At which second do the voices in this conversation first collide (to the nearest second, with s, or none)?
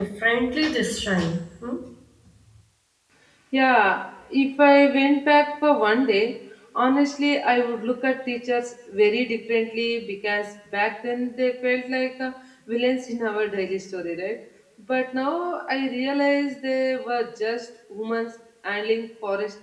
none